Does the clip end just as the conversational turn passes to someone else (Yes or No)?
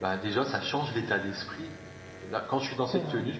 No